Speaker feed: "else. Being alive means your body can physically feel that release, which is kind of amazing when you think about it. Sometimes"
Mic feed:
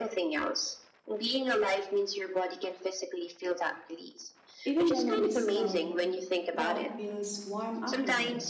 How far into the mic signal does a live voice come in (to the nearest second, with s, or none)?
5 s